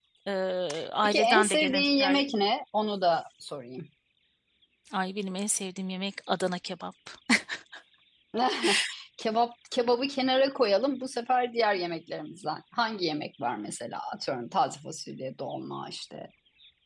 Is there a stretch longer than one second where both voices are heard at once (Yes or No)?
Yes